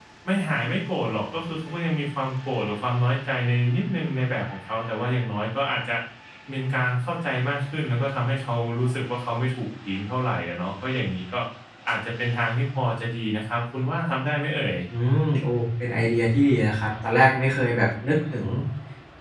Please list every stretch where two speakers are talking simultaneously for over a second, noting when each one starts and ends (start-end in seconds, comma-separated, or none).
none